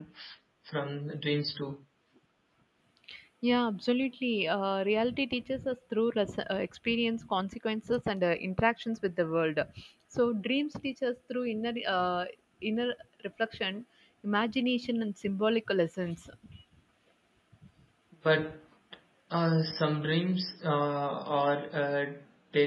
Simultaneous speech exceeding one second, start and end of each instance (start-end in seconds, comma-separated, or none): none